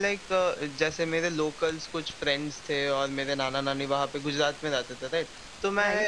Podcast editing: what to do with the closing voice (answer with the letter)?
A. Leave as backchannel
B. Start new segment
A